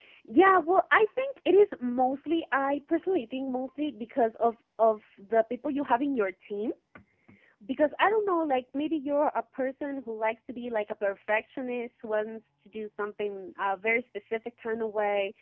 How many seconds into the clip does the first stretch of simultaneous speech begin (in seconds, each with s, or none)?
none